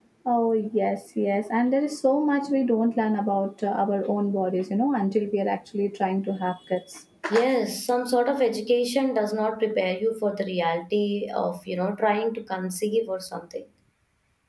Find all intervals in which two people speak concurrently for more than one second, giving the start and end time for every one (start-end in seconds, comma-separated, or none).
none